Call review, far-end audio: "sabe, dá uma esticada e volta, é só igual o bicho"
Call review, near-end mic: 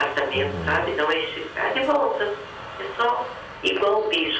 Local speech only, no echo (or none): Aham.